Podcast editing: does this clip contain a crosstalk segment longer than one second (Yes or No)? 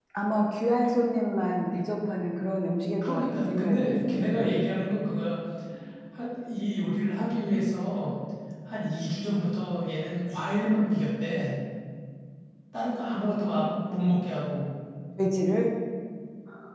Yes